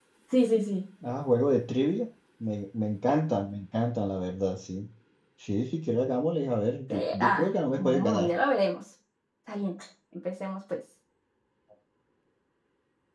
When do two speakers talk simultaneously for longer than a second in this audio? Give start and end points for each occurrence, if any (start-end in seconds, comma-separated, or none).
6.9-8.3